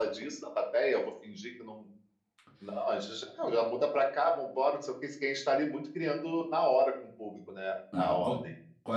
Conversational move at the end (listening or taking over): taking over